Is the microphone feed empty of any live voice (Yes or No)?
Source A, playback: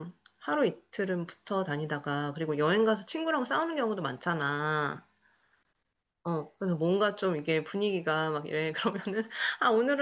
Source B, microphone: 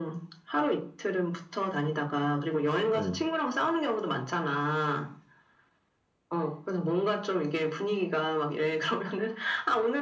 No